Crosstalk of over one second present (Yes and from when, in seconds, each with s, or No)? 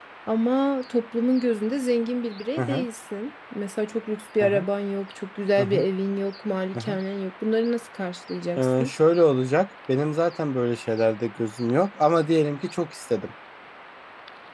No